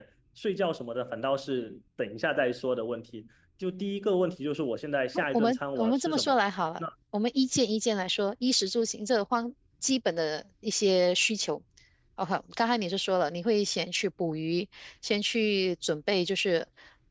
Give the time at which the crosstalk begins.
5.1 s

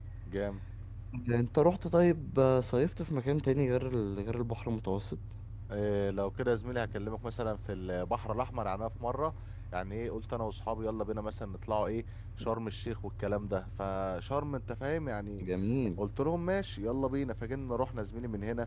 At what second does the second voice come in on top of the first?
none

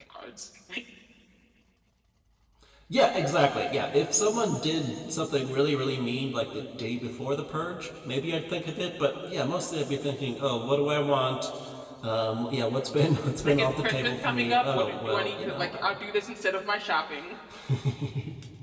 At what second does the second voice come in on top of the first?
13.4 s

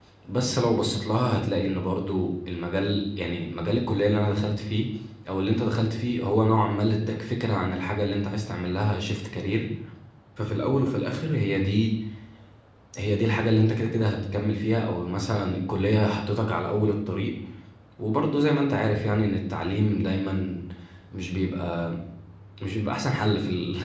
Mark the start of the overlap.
none

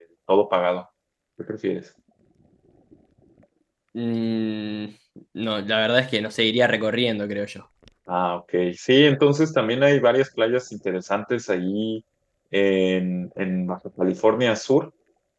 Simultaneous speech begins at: none

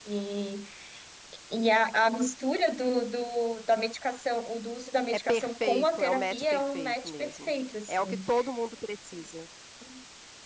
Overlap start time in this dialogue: 5.1 s

